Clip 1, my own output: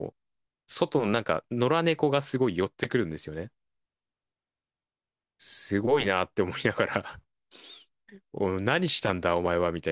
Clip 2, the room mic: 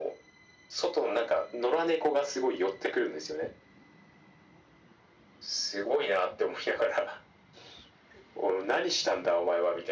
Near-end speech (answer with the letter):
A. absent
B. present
A